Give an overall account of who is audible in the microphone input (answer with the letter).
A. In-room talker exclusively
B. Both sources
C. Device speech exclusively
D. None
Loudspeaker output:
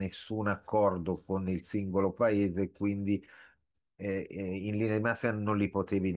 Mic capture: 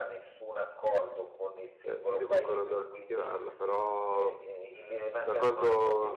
B